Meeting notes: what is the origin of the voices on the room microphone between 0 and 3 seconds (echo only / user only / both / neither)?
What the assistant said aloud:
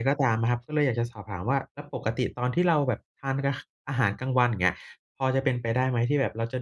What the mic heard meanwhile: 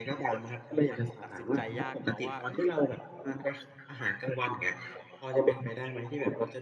both